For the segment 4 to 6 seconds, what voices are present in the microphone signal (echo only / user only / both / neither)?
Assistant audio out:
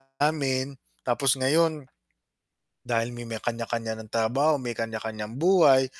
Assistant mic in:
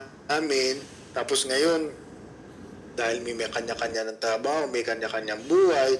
echo only